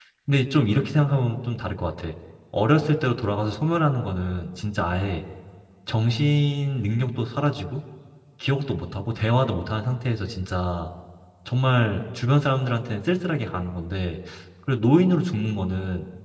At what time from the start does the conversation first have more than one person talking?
none

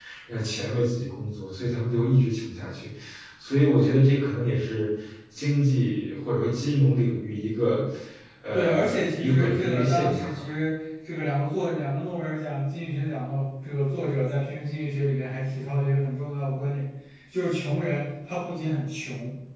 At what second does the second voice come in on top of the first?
9 s

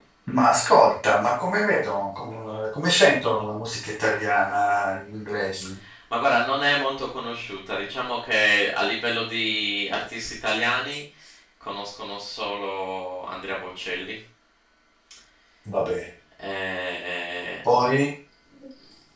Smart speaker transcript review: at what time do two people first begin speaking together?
none

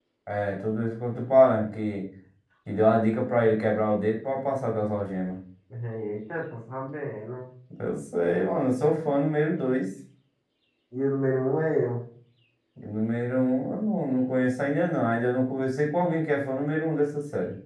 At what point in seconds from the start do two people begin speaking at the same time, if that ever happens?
none

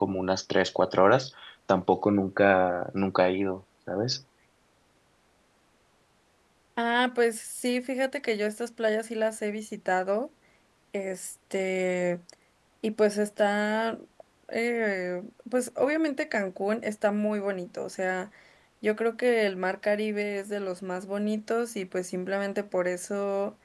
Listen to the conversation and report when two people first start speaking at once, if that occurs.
none

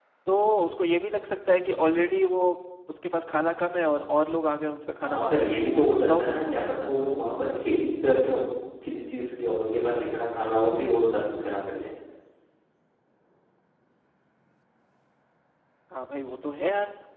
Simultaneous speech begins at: 5 s

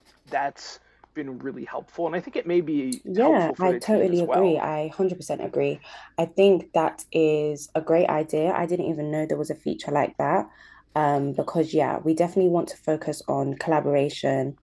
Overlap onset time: 3 s

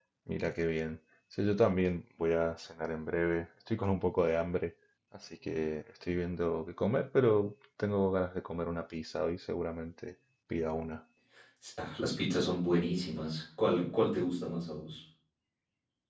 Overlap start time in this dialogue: none

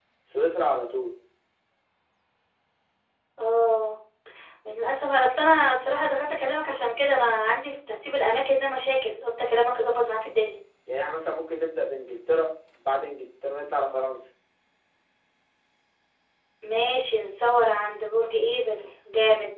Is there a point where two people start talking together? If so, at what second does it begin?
none

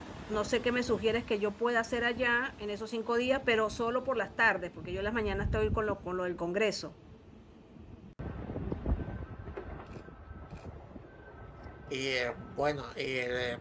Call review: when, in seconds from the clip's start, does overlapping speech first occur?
none

